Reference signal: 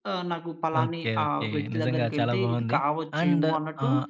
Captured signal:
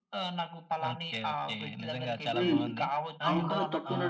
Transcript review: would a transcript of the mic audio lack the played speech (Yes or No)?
No